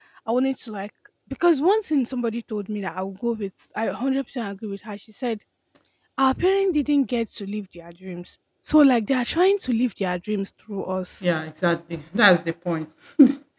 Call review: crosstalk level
none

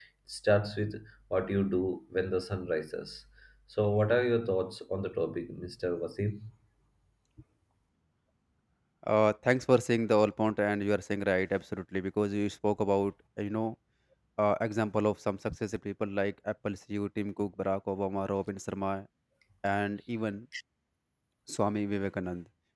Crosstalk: none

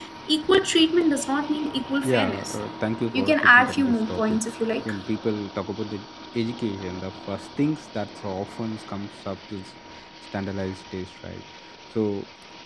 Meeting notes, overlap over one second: present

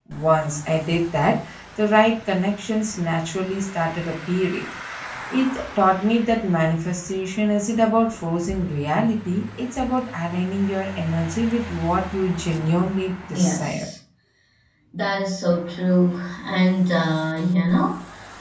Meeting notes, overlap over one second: none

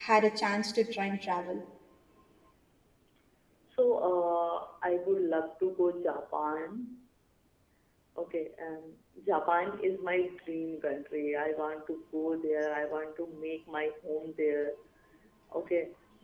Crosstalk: none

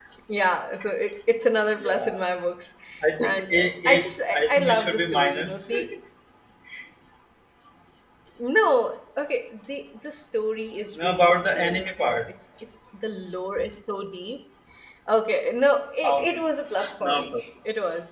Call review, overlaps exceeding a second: present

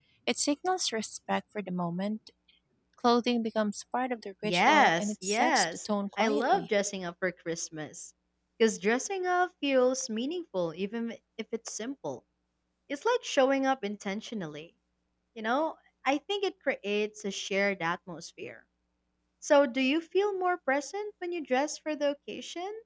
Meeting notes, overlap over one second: present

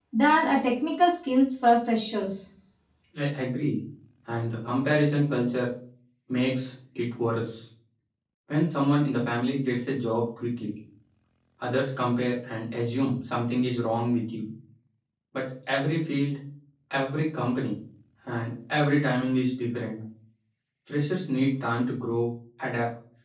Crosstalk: none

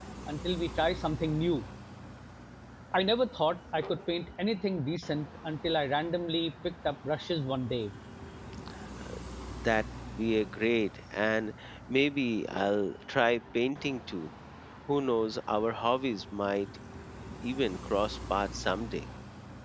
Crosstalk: none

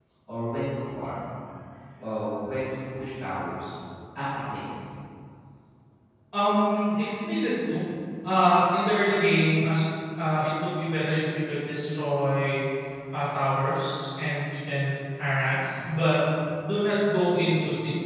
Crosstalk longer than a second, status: none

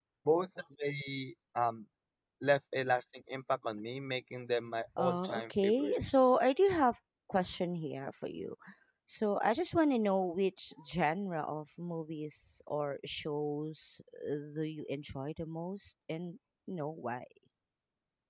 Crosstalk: present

